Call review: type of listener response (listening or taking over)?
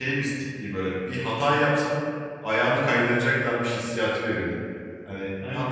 listening